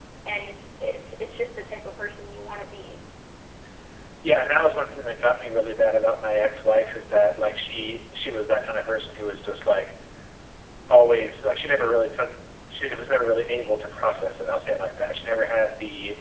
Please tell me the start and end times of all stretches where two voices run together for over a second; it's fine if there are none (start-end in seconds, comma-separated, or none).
none